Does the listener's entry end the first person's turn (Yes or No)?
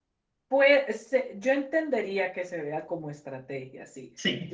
No